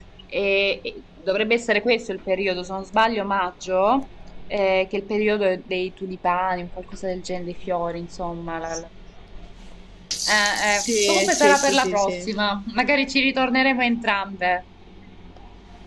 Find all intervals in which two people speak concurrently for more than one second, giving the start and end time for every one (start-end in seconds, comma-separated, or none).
10.8-12.3